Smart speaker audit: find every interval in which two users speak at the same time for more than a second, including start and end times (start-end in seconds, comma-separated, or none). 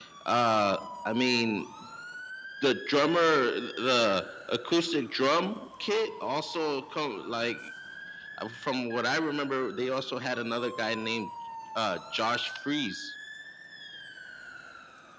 none